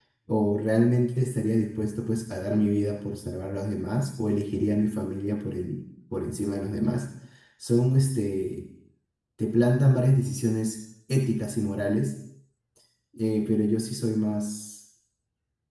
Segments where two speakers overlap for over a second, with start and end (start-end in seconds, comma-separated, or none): none